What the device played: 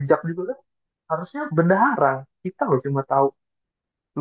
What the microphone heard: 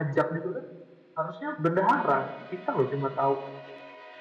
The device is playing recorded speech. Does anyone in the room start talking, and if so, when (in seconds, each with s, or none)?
none